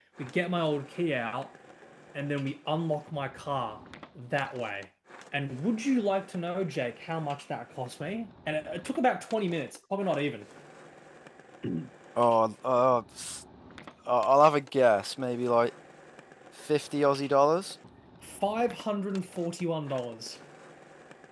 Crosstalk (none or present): none